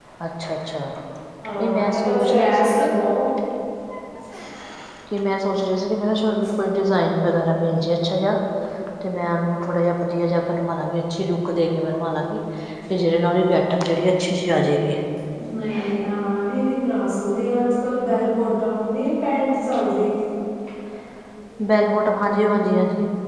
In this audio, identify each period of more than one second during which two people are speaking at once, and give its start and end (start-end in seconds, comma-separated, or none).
1.6-2.9